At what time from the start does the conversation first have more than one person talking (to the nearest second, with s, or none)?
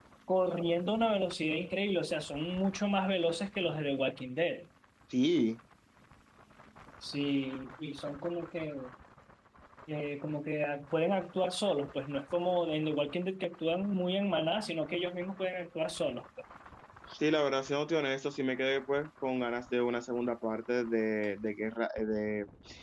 none